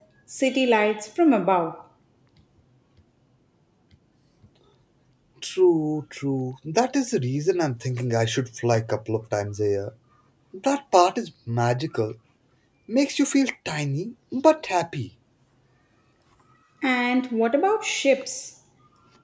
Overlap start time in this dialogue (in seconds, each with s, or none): none